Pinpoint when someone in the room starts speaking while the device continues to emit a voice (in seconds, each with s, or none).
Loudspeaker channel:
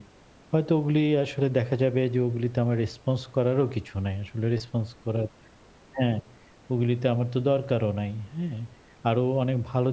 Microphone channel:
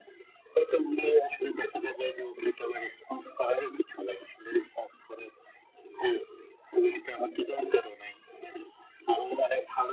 none